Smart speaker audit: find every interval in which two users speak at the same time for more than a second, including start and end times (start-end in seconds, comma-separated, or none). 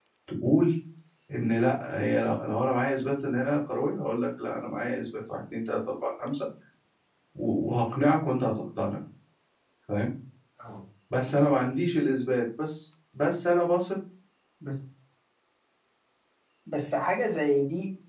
none